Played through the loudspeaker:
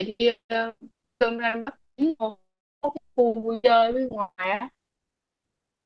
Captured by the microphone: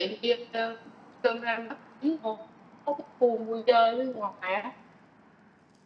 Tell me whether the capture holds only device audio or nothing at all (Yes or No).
Yes